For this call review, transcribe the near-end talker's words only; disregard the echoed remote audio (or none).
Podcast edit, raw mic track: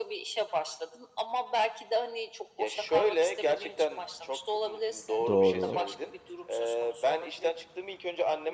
Doğru.